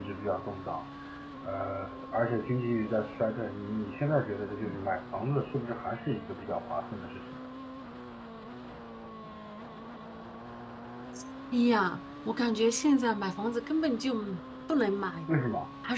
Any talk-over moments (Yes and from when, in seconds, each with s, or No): No